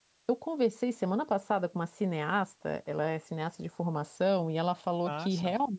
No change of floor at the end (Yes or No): Yes